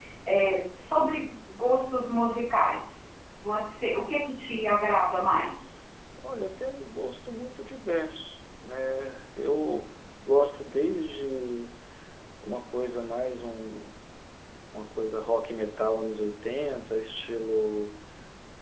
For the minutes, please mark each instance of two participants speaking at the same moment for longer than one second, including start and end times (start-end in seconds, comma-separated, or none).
none